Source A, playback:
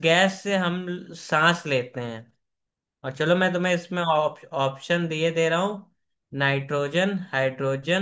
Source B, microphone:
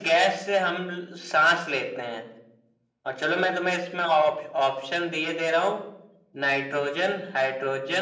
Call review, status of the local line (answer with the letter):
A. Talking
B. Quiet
B